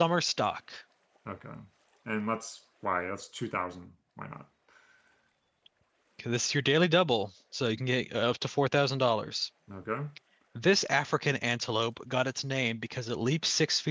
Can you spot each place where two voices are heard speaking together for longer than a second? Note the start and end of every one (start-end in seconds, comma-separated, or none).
none